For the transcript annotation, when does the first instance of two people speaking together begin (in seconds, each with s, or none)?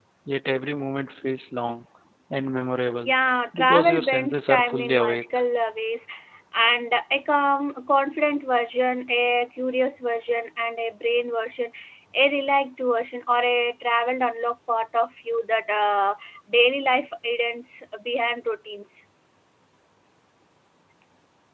3.6 s